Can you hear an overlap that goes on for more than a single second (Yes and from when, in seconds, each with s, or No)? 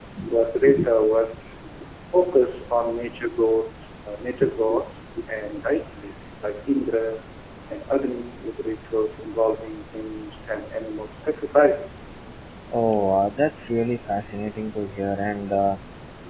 No